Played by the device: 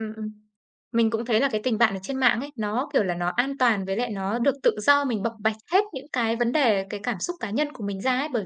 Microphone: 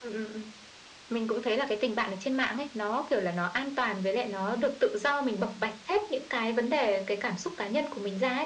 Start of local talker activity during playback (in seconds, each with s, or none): none